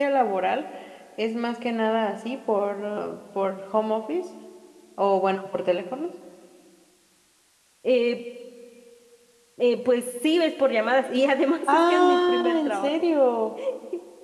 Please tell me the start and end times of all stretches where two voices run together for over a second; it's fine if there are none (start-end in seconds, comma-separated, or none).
11.7-12.9